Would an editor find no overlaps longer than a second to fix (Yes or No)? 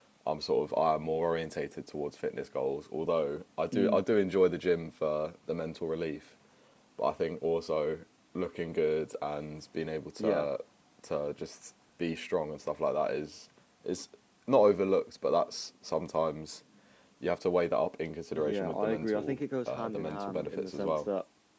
No